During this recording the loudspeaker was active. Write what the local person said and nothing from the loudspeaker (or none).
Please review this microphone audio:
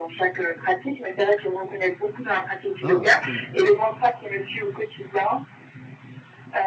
Ah, cool.